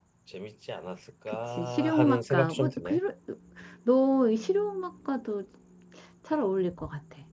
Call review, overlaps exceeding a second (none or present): present